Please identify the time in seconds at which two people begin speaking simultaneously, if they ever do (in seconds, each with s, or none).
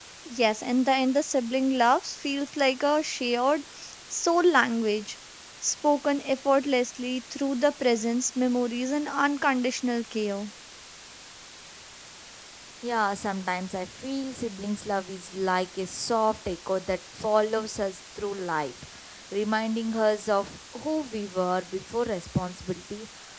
none